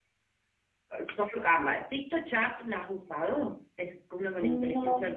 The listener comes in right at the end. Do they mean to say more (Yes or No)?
No